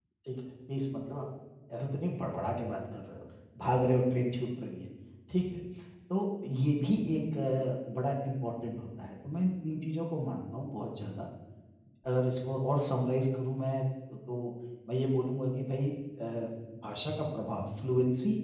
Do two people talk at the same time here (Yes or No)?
No